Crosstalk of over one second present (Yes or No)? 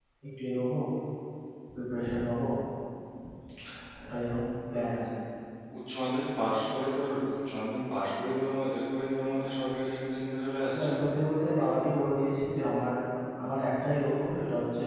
No